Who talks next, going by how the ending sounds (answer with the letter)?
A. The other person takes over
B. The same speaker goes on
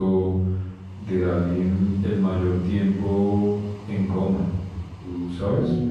A